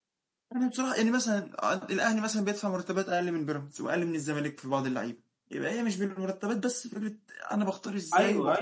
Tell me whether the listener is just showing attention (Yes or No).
No